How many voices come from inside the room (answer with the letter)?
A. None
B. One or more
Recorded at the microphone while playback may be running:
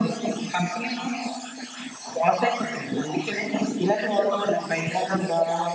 A